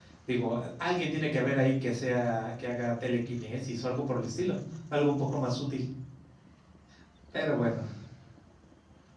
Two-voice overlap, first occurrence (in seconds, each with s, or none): none